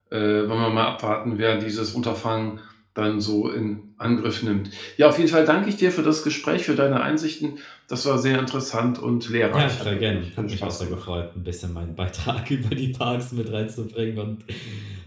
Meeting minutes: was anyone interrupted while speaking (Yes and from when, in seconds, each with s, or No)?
Yes, from 9.5 s